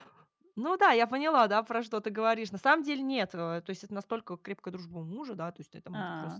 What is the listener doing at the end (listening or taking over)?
listening